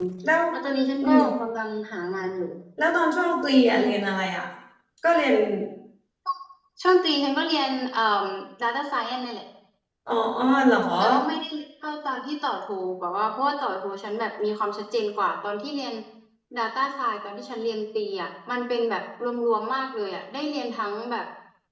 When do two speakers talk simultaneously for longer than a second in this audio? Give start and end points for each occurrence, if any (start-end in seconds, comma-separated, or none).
none